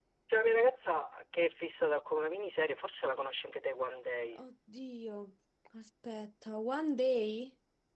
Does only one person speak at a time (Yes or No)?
Yes